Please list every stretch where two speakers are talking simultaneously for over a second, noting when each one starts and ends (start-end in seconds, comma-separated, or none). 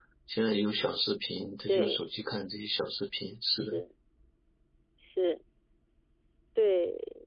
none